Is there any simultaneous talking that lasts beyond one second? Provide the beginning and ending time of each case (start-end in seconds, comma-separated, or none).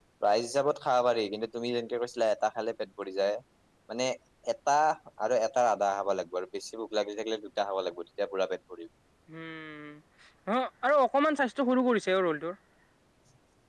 none